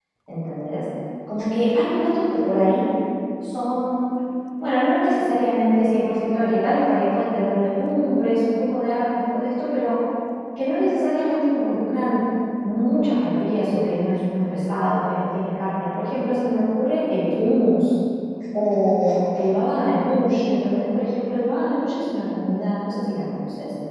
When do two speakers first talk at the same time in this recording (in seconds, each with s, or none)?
none